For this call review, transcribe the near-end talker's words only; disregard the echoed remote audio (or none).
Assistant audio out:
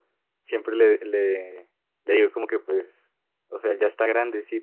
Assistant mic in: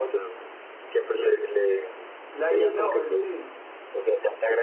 La IA no, él sí.